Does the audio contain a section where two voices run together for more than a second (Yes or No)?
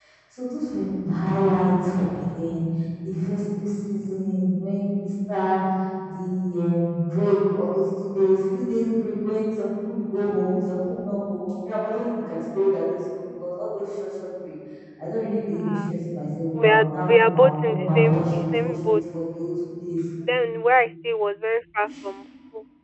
Yes